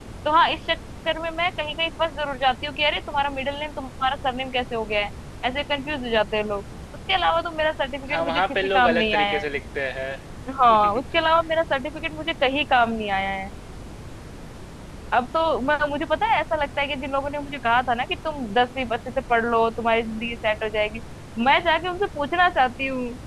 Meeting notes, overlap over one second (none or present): present